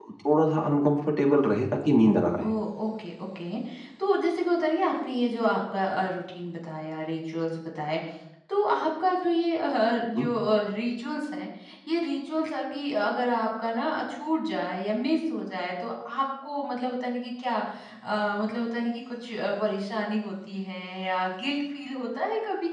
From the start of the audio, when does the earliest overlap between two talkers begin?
none

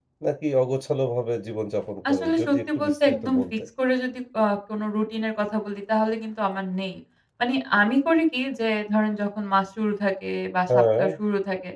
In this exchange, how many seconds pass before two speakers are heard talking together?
2.1 s

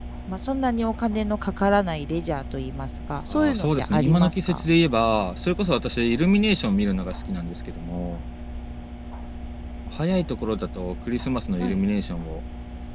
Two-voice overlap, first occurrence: 3.3 s

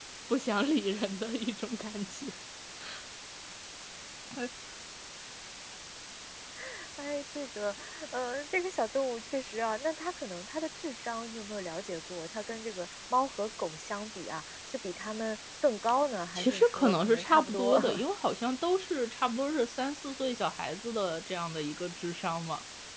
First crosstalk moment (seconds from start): 16.4 s

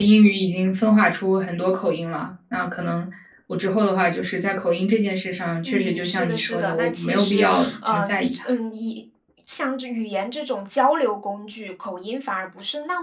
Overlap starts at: 5.6 s

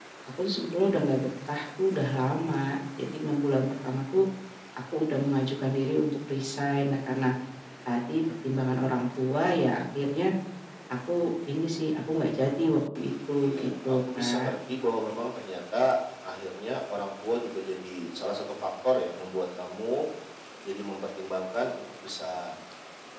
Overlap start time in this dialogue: 13.3 s

